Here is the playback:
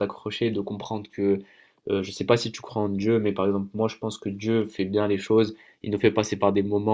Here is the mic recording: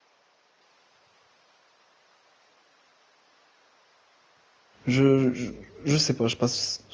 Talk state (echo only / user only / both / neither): user only